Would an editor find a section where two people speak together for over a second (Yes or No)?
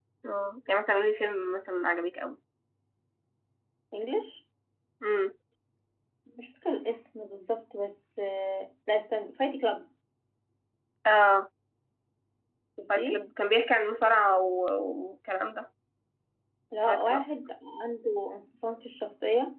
No